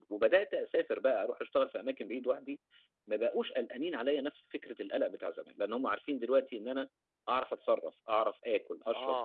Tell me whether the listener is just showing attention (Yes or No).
No